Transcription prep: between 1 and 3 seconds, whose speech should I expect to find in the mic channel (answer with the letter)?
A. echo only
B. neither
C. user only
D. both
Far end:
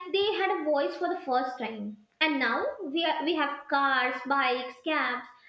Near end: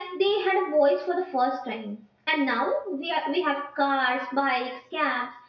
A